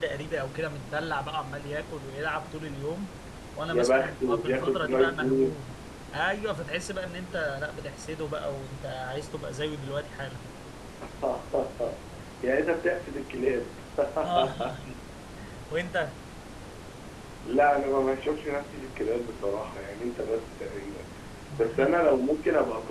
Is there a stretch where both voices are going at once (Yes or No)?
Yes